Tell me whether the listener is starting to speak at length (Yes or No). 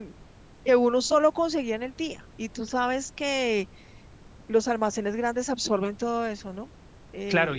Yes